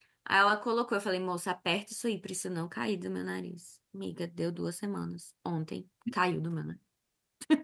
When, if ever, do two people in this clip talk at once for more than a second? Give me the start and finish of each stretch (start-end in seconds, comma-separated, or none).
none